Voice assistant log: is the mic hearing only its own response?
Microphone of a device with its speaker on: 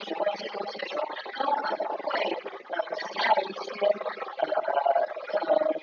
Yes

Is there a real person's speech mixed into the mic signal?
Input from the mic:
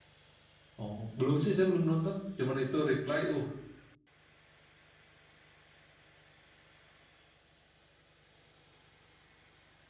Yes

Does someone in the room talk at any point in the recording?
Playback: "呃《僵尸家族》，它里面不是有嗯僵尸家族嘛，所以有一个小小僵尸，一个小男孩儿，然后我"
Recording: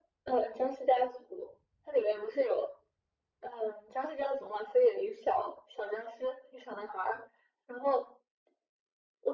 No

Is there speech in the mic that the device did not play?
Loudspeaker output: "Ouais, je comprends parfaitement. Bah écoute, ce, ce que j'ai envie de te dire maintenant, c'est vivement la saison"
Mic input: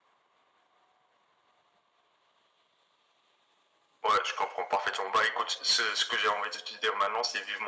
No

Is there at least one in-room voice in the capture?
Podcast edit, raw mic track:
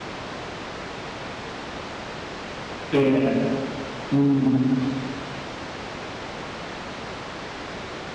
Yes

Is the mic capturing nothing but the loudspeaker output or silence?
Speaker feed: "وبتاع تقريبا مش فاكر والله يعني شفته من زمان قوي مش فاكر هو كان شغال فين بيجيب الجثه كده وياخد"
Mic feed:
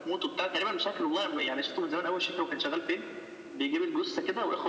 Yes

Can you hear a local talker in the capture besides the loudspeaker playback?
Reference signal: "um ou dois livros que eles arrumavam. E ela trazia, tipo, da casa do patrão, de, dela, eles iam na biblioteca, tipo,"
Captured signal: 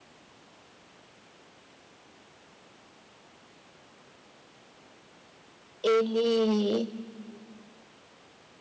Yes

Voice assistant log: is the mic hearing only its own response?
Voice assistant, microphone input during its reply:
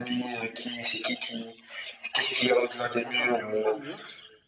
No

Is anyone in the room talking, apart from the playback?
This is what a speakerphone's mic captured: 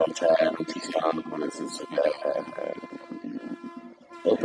No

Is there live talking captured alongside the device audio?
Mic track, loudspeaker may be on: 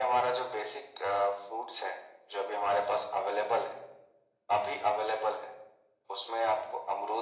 No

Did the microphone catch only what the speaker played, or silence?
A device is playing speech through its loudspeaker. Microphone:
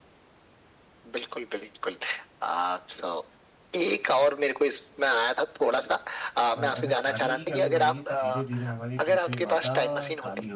No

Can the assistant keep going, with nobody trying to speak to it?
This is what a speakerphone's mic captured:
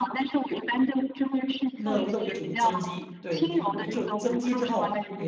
No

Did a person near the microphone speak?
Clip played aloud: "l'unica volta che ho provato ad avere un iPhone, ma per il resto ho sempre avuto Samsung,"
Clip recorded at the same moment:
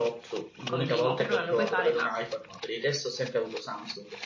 Yes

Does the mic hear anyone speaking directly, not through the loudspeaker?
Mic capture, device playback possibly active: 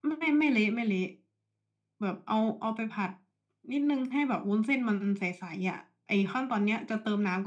No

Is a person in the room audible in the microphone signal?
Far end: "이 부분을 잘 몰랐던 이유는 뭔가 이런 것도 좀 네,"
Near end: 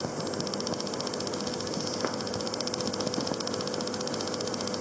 No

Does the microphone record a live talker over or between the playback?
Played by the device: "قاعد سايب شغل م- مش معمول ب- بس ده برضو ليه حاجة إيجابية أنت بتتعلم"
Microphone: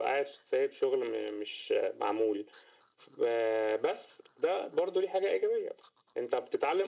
No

